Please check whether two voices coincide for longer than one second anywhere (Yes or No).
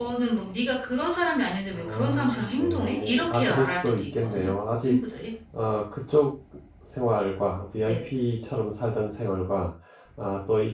Yes